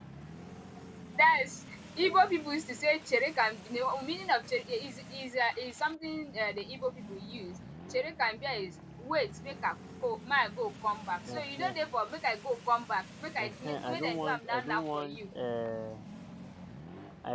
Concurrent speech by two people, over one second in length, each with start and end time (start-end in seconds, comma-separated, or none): 13.4-15.2